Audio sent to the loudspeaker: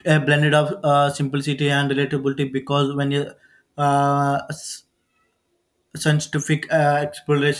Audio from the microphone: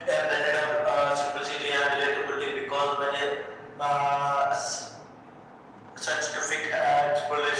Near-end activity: none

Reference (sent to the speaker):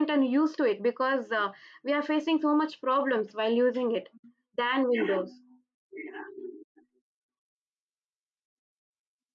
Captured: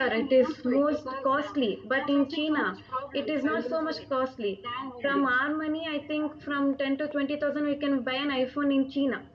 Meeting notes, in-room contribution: present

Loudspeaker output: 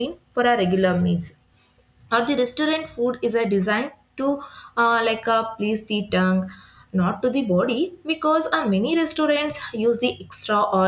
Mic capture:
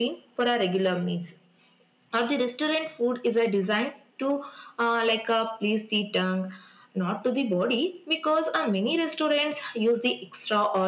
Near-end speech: none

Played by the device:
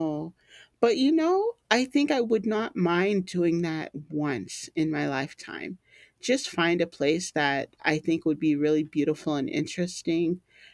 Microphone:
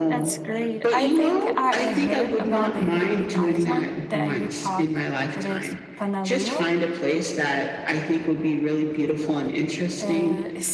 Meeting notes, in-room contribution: present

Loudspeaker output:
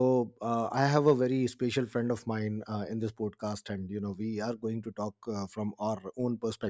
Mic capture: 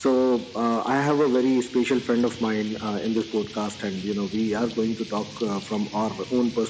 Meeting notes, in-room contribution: none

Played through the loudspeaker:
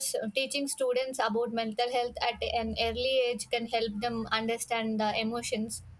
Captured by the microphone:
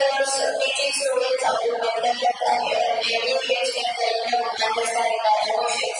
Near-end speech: none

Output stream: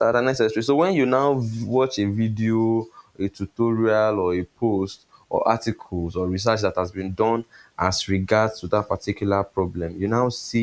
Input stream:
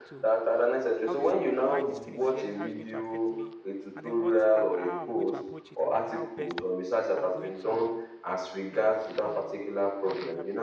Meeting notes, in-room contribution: present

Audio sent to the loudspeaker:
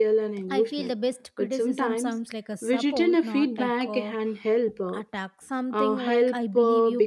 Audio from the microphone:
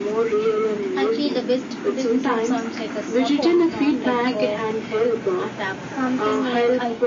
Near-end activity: none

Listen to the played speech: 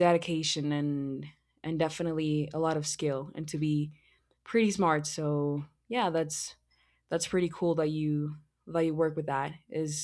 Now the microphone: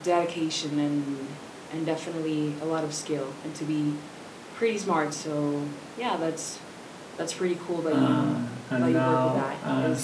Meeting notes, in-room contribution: present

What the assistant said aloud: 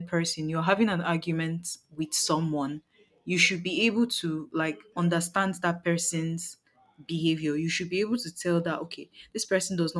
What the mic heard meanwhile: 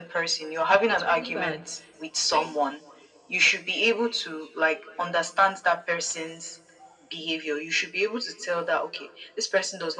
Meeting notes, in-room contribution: present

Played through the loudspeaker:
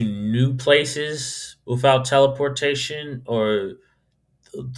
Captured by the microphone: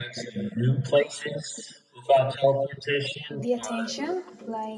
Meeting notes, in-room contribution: present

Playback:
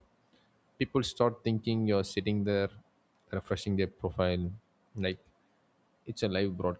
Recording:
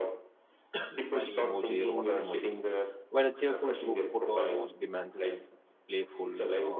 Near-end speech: present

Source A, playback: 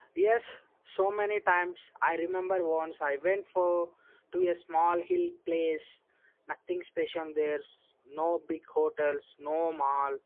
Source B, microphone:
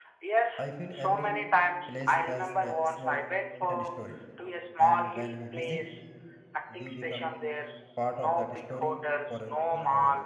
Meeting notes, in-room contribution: present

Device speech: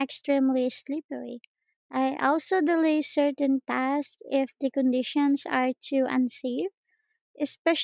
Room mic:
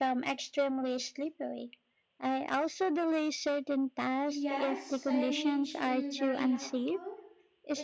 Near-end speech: present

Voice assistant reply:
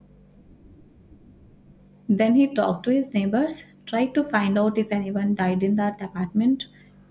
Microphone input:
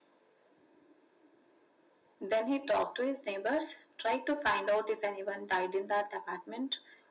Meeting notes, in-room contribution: none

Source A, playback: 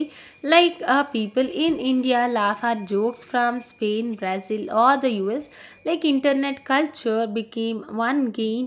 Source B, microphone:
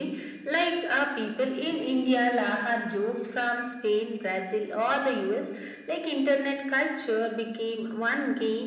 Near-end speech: none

